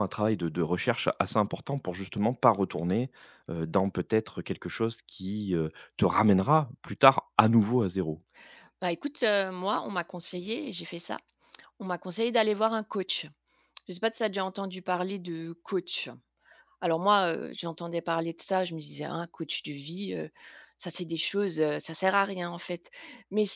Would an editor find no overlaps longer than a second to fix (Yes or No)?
Yes